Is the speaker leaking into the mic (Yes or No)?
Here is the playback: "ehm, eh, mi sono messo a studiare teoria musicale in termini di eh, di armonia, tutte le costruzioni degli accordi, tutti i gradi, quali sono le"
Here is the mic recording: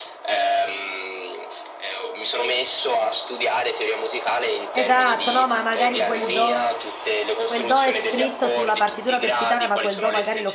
Yes